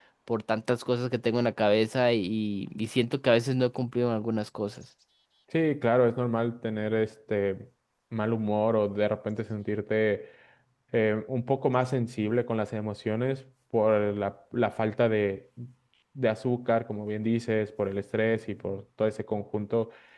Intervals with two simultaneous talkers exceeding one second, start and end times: none

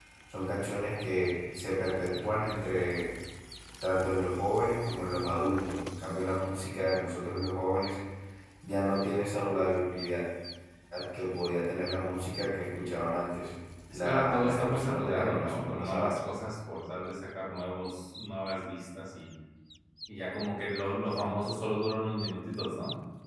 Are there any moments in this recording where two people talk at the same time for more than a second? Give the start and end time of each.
13.9-16.2

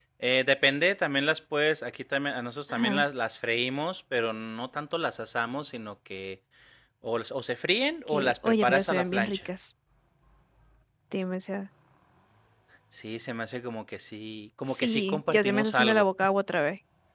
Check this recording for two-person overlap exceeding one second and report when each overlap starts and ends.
8.1-9.4, 14.7-16.0

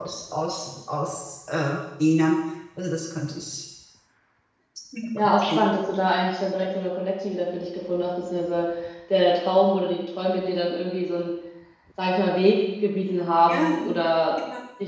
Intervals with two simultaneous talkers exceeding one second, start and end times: none

